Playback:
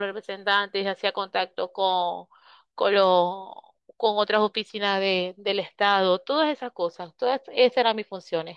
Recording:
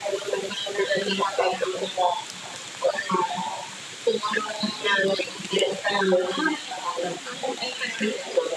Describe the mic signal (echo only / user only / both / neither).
echo only